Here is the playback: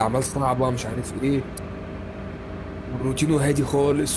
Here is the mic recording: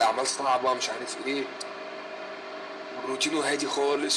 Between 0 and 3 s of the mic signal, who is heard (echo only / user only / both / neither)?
echo only